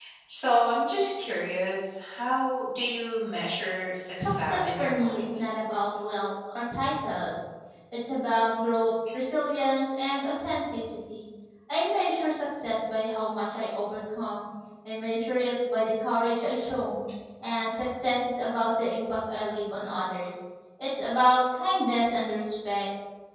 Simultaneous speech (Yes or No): Yes